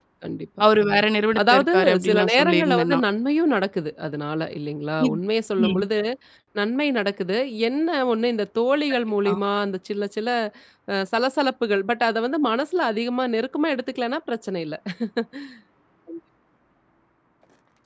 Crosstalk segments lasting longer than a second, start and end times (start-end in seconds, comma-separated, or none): 1.5-3.0